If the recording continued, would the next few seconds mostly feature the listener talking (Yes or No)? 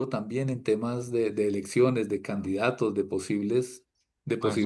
Yes